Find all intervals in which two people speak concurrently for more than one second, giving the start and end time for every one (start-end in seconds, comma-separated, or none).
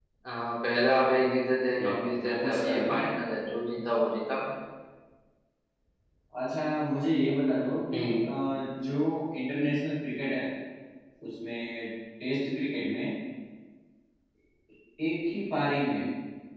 1.8-3.1